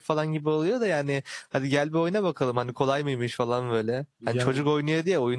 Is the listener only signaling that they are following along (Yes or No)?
Yes